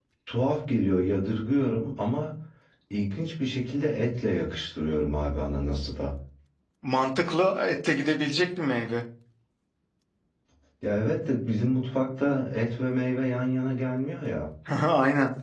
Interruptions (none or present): none